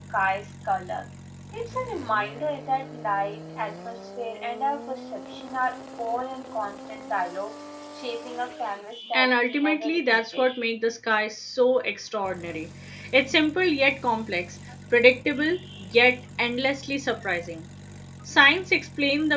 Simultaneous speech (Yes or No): Yes